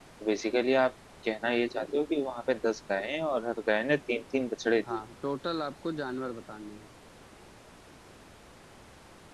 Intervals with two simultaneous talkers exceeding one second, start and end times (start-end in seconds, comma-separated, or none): none